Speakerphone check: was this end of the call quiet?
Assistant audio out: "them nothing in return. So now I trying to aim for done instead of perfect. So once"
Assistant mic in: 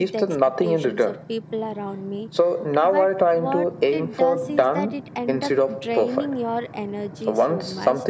No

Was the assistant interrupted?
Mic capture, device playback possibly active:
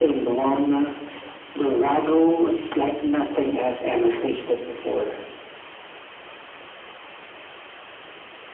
No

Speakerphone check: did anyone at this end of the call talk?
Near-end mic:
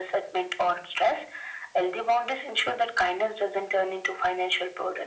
No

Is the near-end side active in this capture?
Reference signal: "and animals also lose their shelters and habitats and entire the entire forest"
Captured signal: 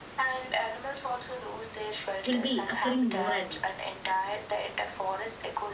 Yes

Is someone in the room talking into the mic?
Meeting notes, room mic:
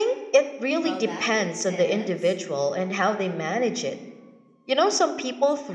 Yes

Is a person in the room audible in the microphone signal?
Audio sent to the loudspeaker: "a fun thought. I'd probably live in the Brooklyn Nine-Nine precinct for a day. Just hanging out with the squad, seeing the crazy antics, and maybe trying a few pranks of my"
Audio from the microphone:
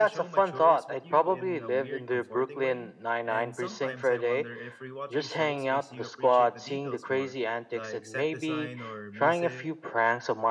Yes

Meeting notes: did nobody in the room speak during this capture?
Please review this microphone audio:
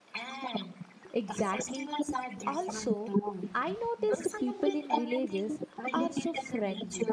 No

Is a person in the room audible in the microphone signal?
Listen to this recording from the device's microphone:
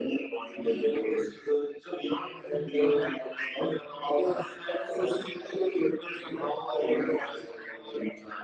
No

